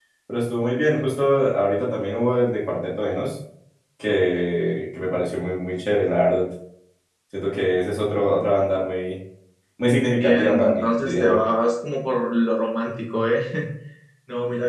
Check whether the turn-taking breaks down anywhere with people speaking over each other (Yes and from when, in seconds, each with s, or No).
Yes, from 9.9 s